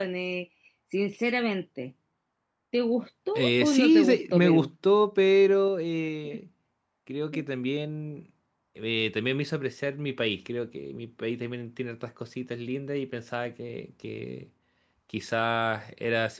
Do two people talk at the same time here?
Yes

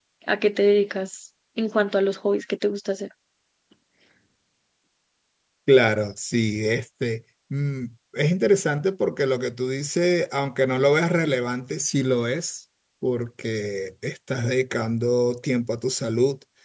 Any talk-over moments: No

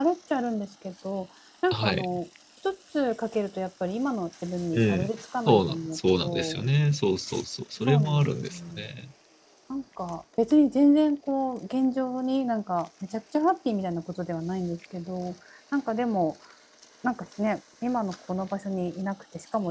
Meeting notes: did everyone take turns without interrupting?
No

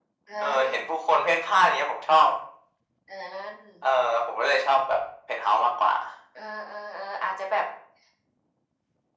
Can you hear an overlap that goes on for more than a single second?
No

